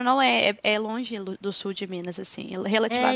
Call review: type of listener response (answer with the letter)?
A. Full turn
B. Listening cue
A